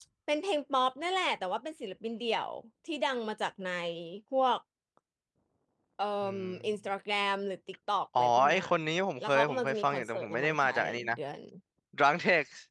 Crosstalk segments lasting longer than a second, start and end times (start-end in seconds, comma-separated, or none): 9.3-11.2